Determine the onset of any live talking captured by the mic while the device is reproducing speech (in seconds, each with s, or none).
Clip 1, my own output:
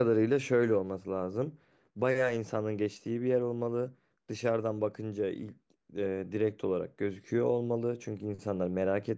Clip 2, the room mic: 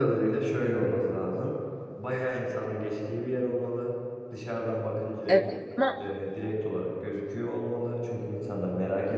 5.3 s